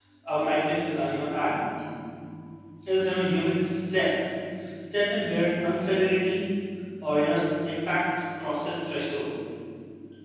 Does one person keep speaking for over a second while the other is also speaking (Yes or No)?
No